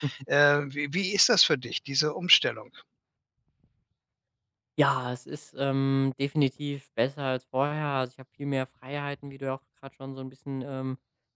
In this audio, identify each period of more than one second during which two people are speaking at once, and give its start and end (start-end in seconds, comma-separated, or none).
none